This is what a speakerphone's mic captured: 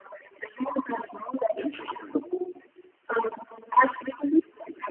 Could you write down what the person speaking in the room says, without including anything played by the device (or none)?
Interesting.